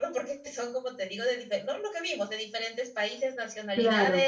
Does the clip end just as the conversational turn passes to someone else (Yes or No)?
No